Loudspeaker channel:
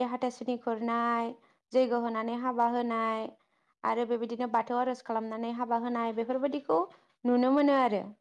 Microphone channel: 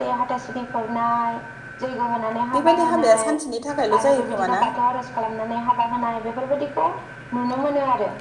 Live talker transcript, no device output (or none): बेबायदि हाबाया सानसेनि थाखायल' जायो खोमा ना